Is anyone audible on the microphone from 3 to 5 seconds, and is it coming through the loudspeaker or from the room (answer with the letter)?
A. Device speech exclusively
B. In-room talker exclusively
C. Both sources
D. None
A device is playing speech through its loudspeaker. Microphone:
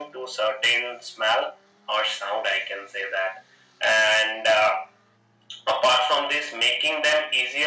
A